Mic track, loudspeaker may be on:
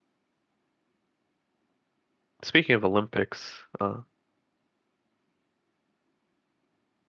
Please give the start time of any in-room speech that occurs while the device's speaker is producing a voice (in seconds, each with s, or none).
2.4 s